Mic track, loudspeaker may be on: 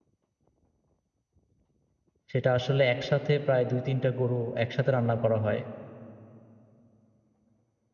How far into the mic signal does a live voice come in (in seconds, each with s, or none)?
2.3 s